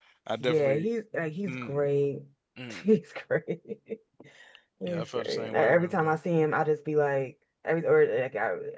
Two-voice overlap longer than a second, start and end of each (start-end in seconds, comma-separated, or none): 4.9-6.1